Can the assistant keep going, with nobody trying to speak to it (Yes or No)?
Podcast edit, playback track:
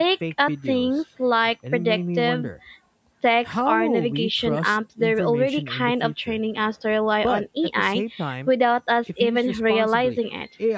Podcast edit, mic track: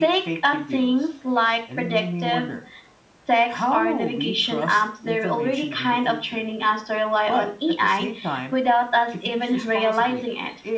Yes